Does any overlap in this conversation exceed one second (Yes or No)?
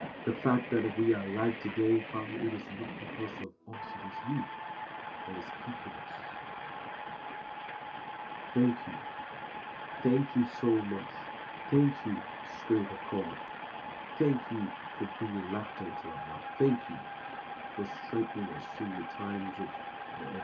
No